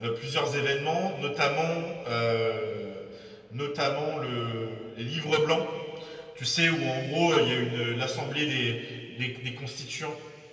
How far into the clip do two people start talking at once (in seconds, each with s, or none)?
none